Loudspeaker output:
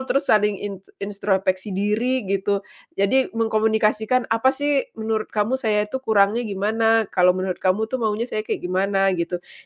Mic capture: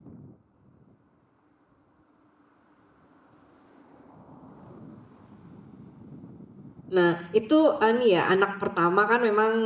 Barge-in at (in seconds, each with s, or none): 6.9 s